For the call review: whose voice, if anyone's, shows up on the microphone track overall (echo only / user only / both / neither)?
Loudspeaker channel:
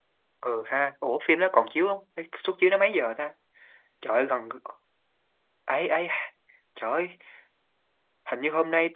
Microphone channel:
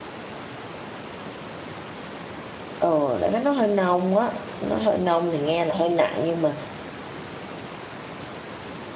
user only